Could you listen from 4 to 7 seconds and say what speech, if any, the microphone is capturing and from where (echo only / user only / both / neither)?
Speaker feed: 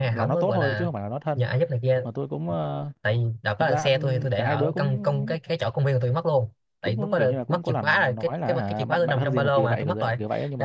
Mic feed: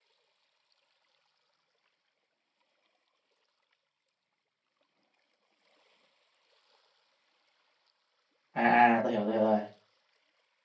neither